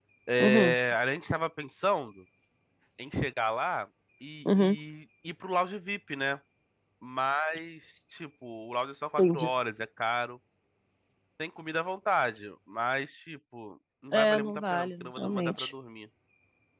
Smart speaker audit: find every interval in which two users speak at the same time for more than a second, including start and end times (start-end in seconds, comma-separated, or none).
14.1-15.7